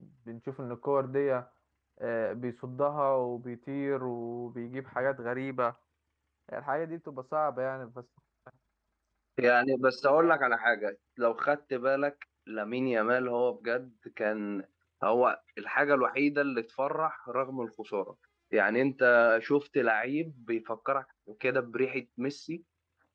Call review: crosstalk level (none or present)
none